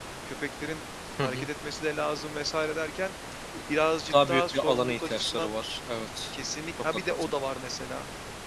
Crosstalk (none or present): present